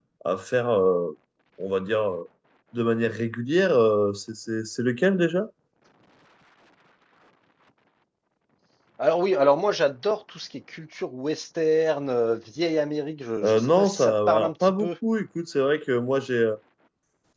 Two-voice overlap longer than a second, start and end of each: 13.4-14.9

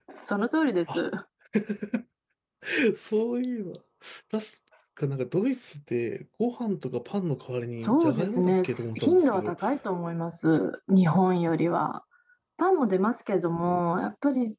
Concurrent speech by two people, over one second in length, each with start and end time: 7.8-9.6

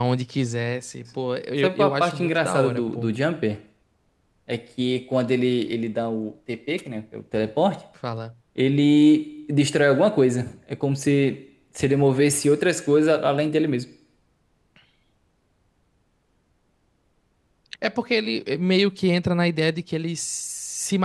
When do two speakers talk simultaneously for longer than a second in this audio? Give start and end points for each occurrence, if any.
1.6-3.1

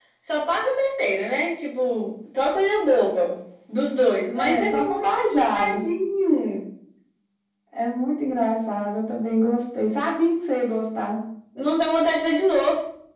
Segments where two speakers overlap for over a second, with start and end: 4.3-5.8

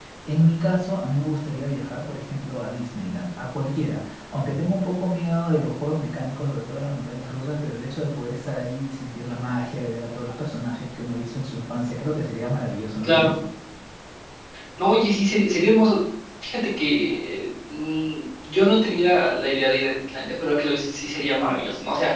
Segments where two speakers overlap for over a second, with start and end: none

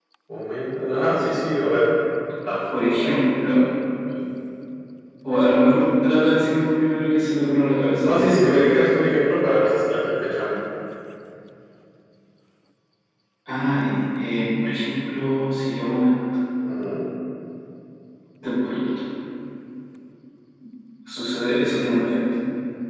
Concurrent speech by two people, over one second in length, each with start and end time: none

